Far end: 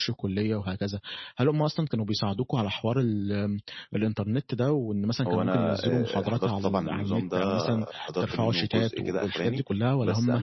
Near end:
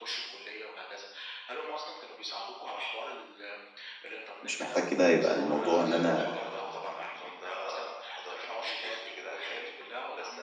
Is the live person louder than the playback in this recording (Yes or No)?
Yes